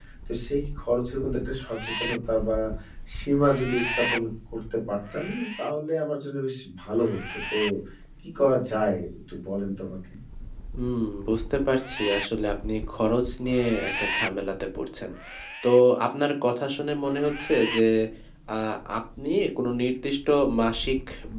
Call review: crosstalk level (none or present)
none